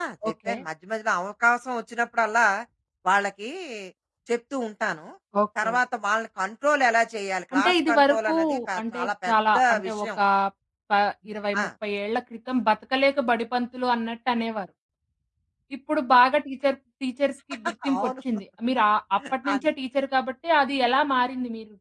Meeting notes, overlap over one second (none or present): present